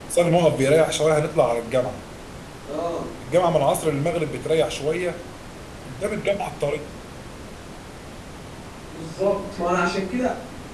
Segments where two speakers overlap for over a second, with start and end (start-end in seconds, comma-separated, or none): none